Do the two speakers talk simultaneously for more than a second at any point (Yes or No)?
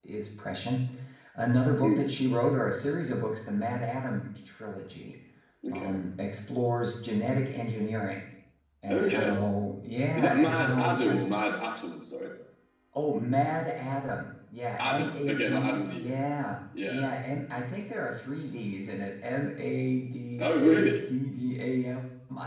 Yes